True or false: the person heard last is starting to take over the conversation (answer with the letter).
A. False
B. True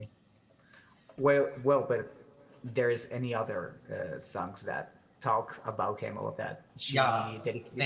B